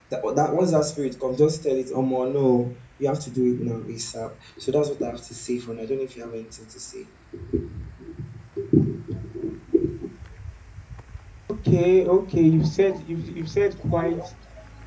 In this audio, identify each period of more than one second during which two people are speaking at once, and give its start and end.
none

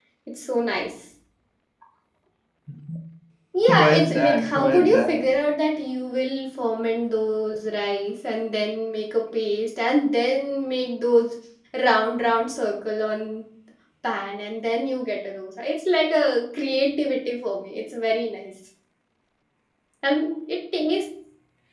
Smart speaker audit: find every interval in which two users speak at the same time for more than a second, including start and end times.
3.7-5.2

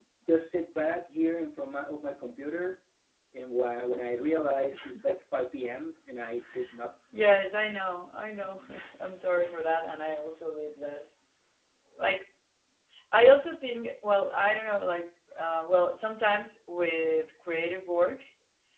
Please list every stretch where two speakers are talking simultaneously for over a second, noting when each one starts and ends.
none

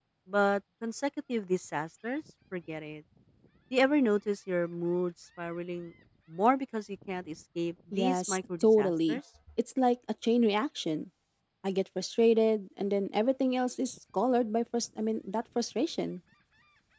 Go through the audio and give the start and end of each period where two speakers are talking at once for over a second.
7.9-9.2

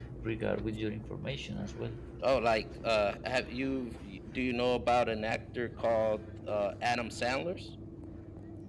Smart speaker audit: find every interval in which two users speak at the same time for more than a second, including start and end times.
none

